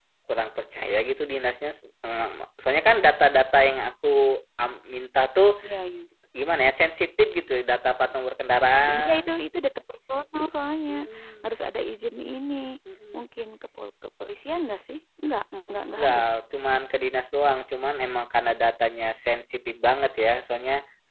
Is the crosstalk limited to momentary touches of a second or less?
Yes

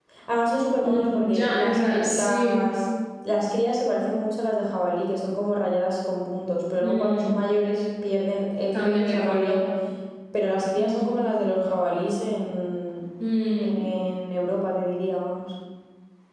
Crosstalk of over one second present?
Yes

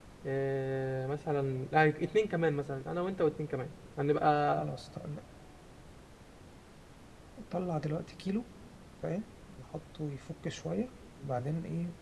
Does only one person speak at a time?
Yes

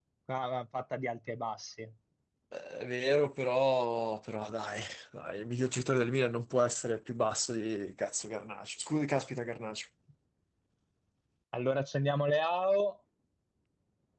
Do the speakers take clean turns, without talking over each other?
Yes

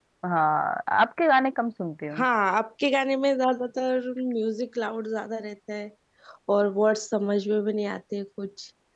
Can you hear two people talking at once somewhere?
No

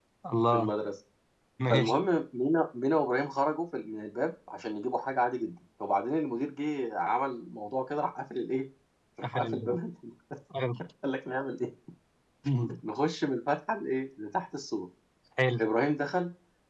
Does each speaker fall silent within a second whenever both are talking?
Yes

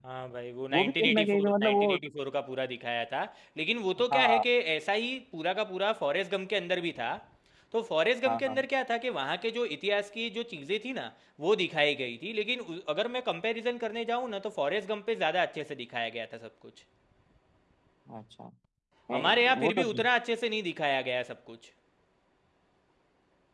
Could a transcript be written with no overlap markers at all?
No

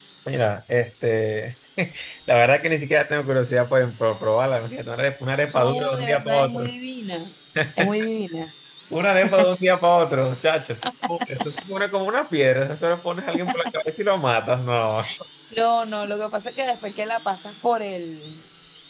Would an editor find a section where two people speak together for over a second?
Yes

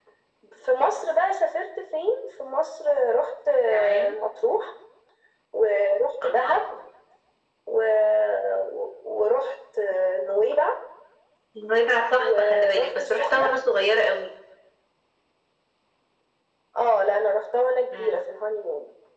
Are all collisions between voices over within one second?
No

